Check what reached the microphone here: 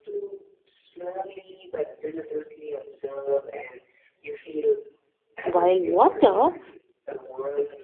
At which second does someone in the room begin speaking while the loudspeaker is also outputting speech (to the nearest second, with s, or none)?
5 s